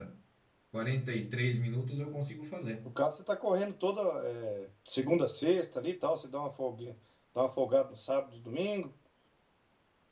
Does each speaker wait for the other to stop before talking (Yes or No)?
Yes